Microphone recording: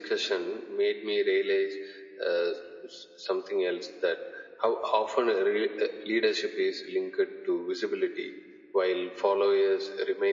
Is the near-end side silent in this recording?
Yes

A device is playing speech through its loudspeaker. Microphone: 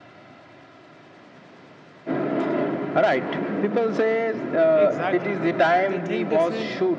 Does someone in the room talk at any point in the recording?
Yes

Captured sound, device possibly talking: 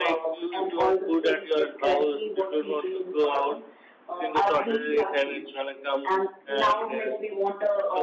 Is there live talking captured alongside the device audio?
No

